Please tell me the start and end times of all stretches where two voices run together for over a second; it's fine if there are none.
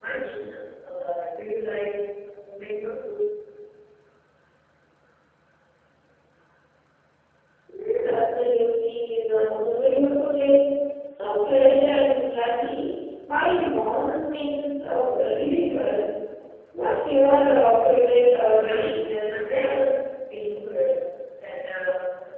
18.5-19.9

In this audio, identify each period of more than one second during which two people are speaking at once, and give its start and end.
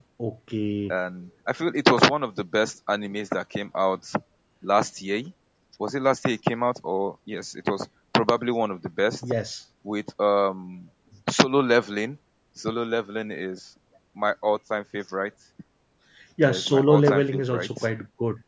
16.4-17.8

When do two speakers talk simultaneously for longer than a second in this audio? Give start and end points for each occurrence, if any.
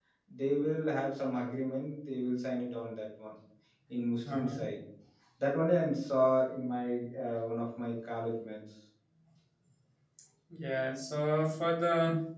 none

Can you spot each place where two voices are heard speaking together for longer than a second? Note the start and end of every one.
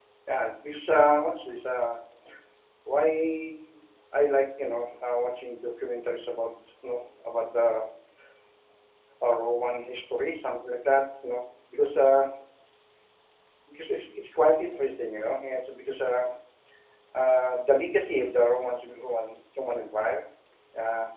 none

